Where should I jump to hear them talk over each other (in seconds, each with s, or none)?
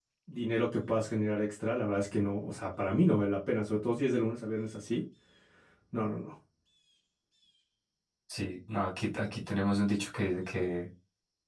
none